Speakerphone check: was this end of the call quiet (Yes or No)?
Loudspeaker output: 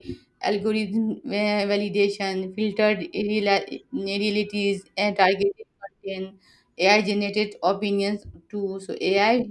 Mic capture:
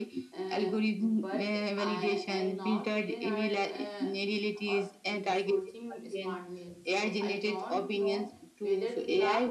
No